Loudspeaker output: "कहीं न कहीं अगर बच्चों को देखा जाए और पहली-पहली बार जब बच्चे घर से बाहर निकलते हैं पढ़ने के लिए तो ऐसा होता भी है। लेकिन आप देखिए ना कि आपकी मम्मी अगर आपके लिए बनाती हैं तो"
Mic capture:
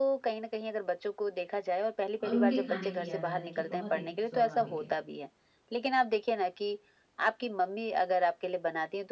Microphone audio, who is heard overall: both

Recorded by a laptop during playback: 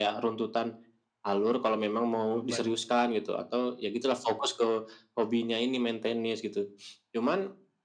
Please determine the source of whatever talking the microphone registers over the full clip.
both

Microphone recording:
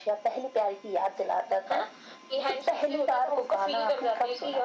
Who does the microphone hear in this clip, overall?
echo only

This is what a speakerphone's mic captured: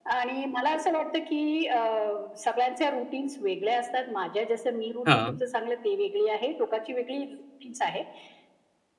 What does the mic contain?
both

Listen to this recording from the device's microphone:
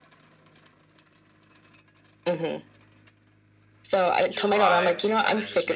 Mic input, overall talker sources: both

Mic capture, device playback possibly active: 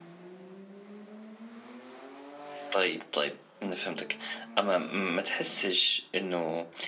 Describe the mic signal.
user only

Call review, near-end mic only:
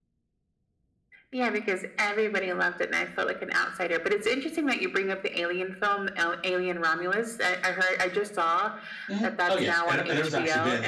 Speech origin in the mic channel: both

